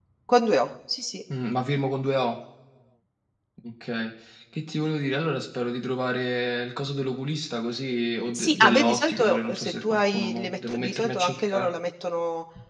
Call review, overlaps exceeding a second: present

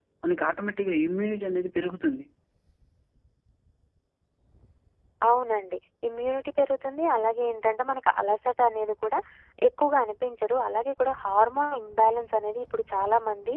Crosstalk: none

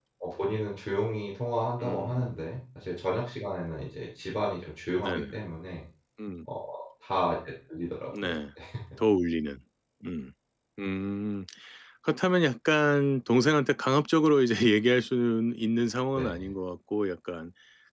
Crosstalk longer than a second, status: none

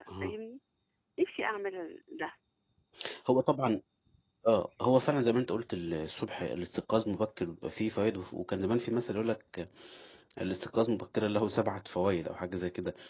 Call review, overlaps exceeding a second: none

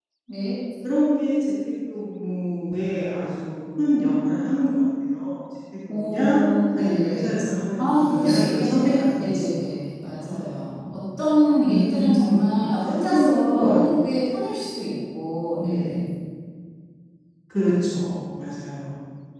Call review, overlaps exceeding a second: present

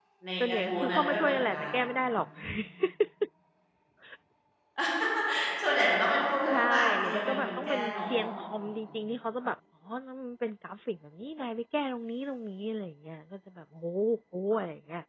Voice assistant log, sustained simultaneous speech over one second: present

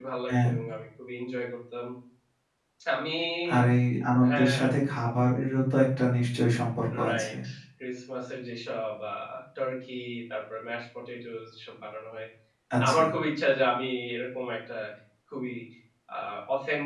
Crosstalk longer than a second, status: none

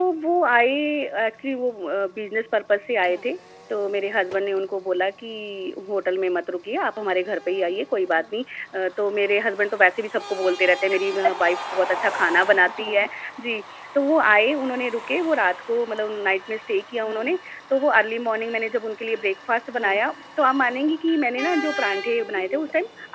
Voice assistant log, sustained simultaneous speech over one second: none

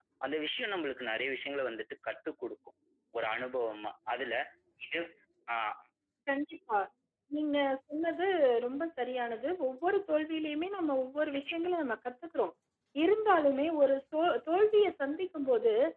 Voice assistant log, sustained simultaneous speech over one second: none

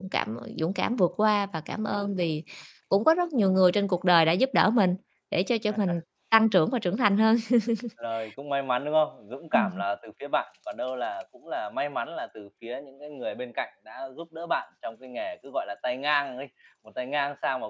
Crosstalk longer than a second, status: none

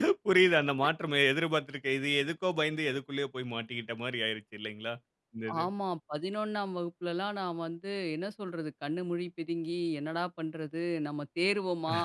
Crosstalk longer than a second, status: none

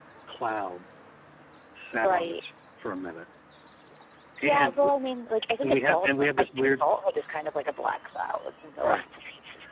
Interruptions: present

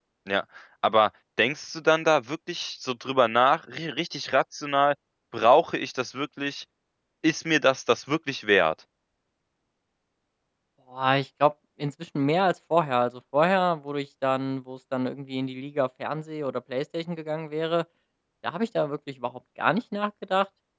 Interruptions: none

